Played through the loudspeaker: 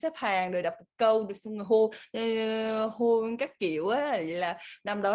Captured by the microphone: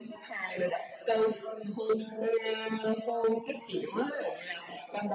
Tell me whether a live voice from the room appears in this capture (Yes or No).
No